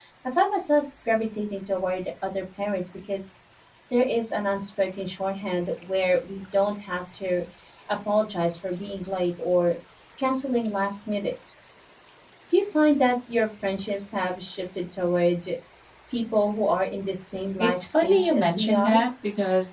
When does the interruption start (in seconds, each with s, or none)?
17.6 s